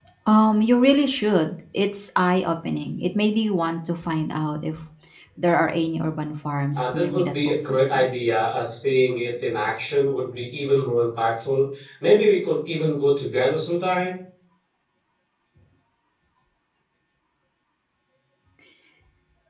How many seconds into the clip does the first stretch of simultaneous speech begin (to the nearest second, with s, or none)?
7 s